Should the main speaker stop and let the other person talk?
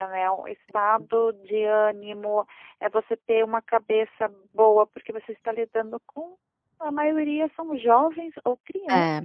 No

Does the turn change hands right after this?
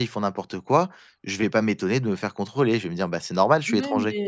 Yes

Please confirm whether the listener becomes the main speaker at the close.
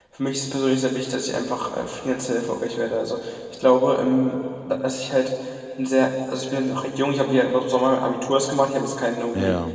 No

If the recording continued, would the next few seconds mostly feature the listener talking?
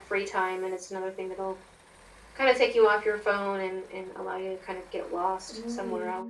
Yes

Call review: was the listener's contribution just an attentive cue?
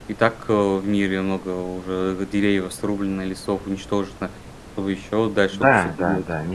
No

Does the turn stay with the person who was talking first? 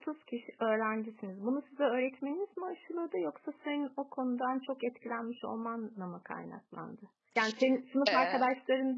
Yes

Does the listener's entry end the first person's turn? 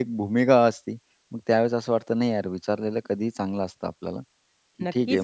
Yes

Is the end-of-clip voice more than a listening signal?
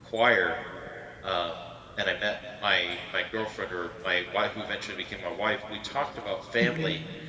No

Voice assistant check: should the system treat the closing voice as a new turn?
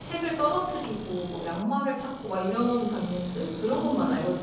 Yes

